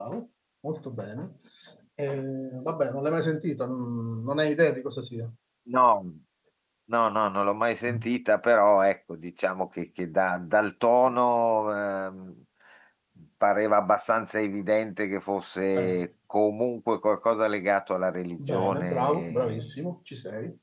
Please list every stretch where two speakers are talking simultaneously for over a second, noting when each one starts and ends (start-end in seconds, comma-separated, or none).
18.4-19.8